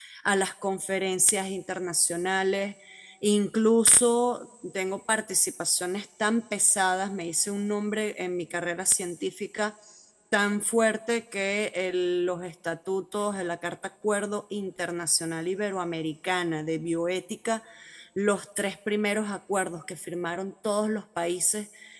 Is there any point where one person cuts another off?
No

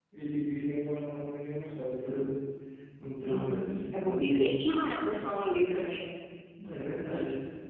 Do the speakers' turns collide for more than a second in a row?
Yes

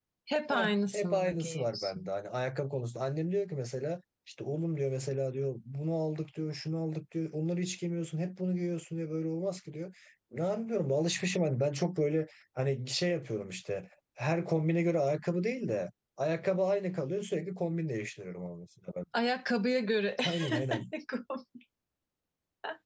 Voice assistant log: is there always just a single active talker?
No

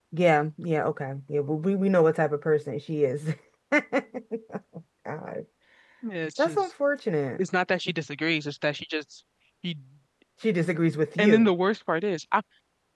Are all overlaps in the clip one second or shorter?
Yes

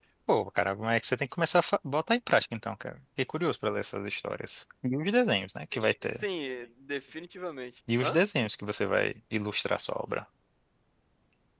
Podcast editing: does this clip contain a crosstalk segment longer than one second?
No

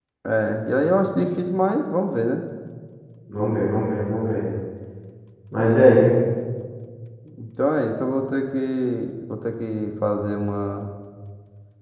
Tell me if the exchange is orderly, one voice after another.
Yes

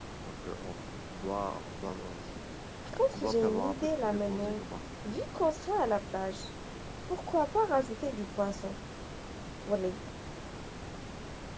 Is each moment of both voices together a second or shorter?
No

